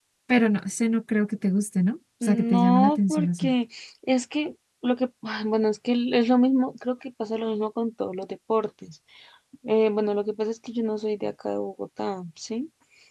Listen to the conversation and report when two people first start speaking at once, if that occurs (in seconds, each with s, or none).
2.2 s